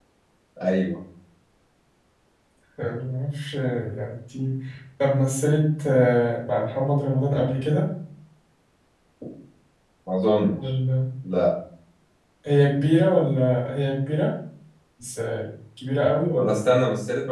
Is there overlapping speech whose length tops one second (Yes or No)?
No